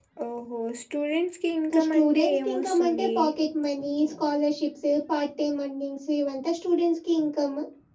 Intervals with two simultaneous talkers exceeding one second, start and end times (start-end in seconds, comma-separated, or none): 1.7-3.1